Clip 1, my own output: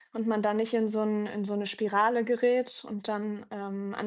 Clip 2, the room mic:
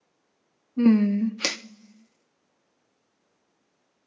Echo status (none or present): none